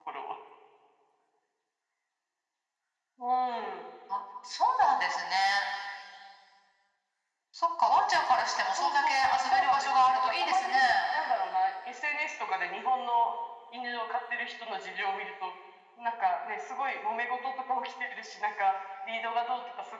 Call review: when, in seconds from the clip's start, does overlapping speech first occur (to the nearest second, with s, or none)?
9 s